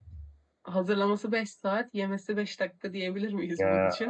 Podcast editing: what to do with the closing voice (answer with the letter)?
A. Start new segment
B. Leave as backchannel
A